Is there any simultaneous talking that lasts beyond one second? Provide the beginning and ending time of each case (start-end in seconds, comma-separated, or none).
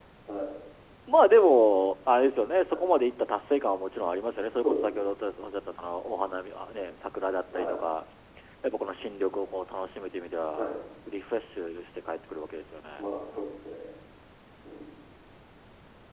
none